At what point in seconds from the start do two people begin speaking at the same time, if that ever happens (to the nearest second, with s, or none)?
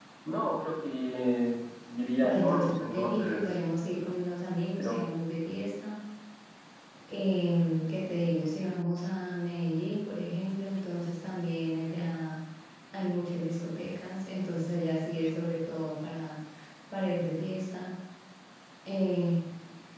2 s